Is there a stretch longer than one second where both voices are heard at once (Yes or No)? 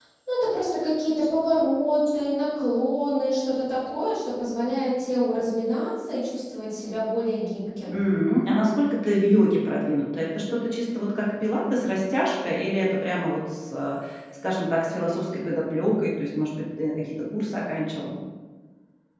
No